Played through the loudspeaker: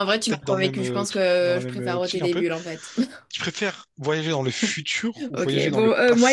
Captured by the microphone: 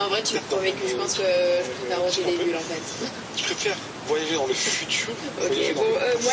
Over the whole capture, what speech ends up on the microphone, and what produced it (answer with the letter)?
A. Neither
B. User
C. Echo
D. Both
C